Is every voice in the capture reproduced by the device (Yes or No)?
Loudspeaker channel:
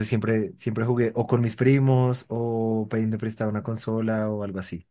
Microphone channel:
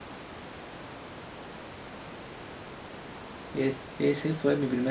No